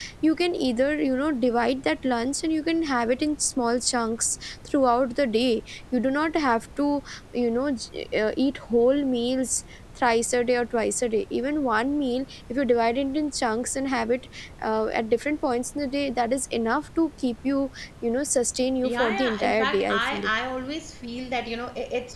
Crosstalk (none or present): present